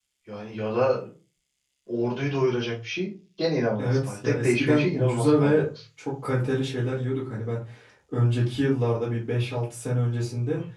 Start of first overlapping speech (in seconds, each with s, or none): 3.8 s